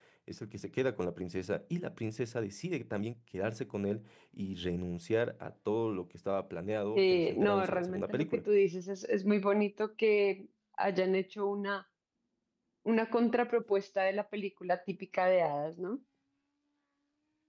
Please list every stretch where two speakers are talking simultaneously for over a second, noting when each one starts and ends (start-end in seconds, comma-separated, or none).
6.9-8.4